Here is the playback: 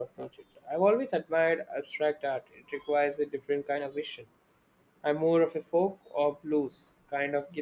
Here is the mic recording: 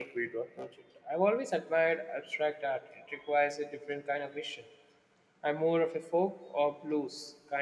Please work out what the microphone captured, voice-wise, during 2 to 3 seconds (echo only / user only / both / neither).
echo only